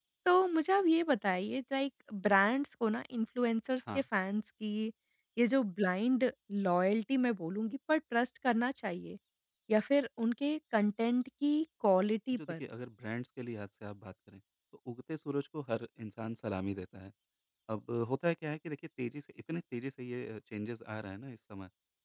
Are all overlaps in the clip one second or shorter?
Yes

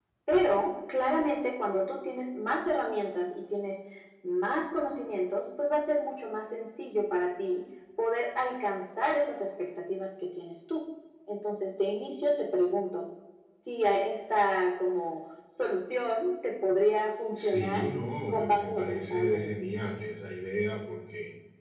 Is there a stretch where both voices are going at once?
Yes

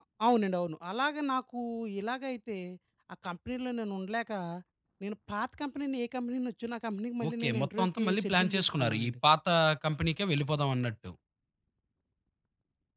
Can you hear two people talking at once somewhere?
Yes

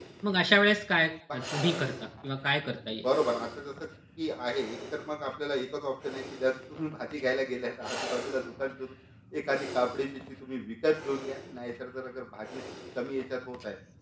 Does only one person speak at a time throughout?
Yes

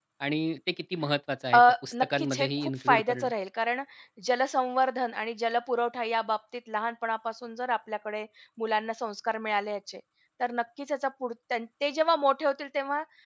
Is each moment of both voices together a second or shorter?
No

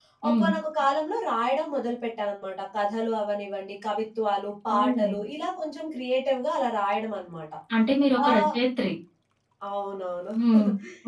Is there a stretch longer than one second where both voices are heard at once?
No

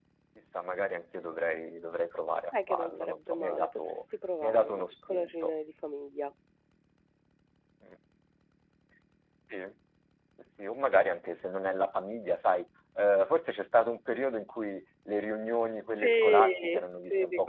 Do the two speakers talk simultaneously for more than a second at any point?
Yes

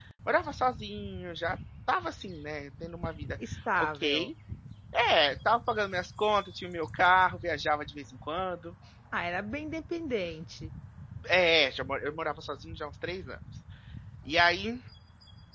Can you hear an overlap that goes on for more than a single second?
No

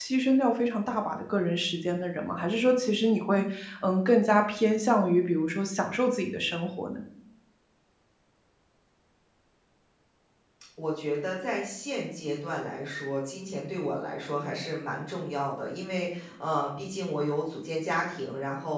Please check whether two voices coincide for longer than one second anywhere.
No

